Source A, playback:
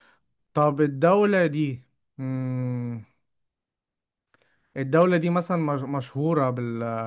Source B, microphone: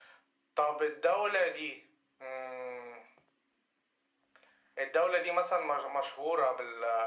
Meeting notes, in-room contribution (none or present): none